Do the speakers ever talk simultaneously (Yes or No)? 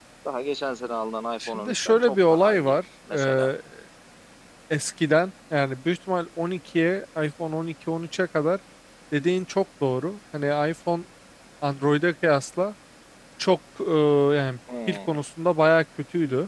Yes